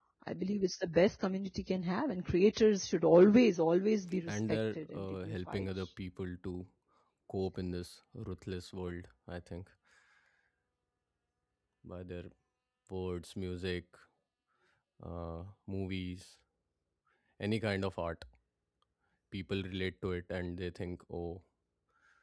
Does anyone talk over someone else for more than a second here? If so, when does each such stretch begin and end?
4.3-5.7

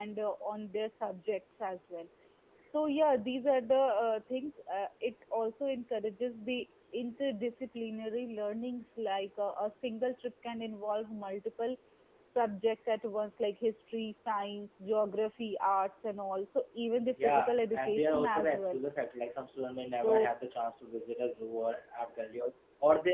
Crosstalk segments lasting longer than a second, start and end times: 17.2-18.8

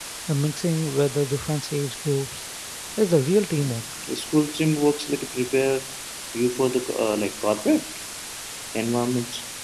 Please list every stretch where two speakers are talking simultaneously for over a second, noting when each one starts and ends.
none

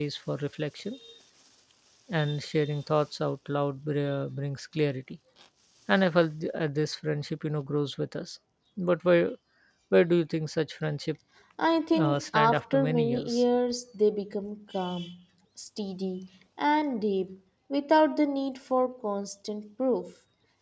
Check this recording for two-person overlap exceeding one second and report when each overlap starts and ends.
12.0-13.4

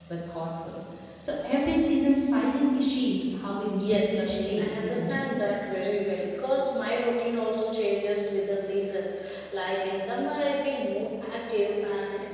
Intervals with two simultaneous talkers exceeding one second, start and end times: 3.8-5.2

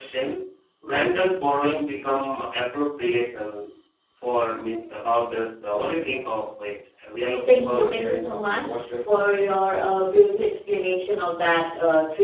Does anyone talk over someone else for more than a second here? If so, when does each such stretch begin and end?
7.5-9.5

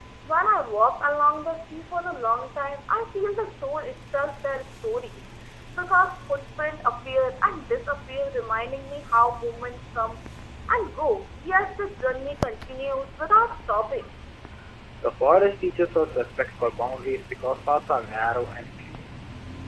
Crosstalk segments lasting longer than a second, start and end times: none

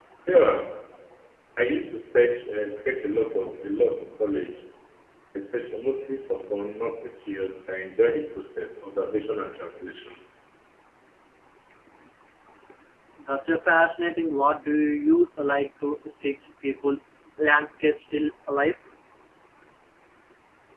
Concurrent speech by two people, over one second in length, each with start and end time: none

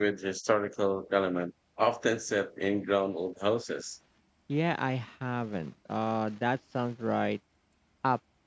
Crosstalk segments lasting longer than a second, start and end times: none

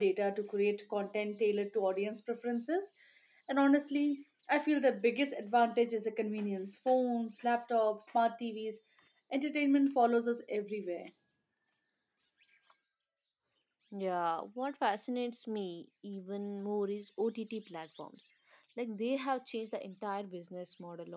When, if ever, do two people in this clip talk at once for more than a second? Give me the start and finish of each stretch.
none

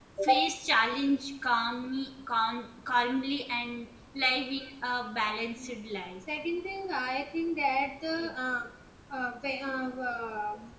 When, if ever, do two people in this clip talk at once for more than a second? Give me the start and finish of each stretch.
none

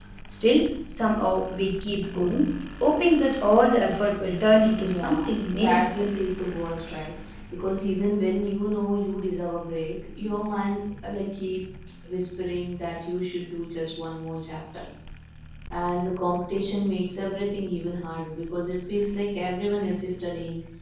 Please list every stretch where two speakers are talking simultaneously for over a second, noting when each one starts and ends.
4.8-6.1

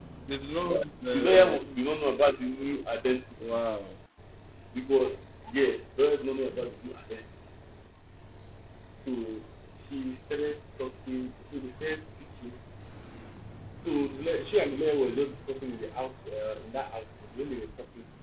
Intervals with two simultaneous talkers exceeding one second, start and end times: none

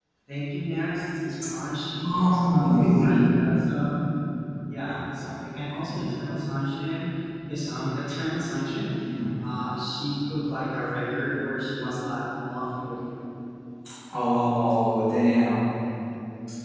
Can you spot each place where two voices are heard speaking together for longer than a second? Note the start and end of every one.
2.1-3.3

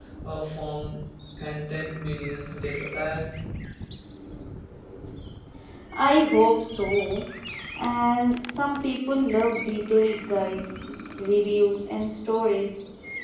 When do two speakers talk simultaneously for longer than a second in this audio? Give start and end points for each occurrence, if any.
none

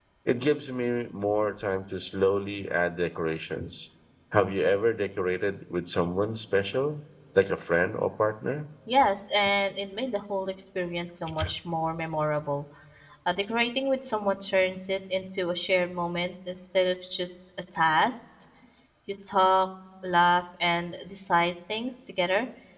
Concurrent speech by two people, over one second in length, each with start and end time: none

